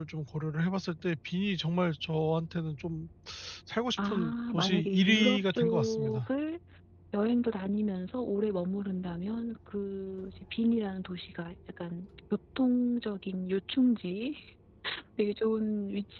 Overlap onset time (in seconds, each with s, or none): 4.0 s